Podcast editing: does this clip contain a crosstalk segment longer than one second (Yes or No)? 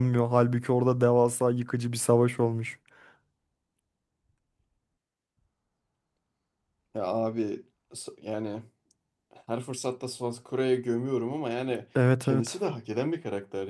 No